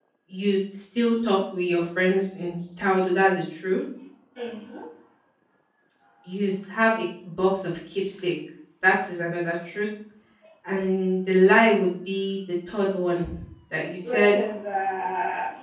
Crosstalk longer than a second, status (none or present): none